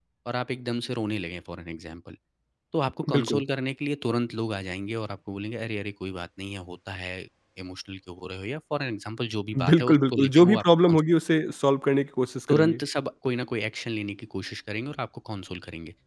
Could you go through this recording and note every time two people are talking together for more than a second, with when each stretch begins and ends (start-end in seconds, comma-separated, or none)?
9.7-11.0